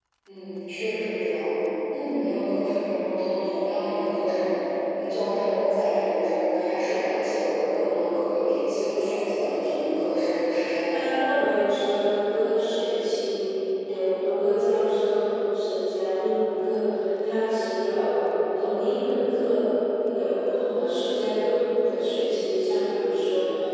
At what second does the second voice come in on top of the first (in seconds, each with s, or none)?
none